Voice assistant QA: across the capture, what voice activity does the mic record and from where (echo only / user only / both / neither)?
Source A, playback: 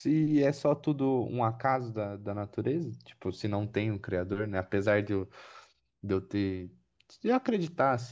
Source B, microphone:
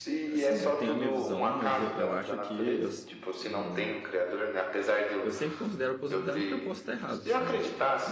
both